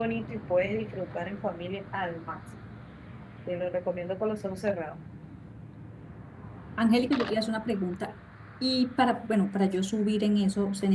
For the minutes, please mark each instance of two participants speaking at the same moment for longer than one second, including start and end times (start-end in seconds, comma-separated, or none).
none